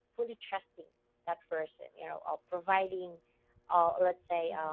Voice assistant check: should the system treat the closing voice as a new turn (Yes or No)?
Yes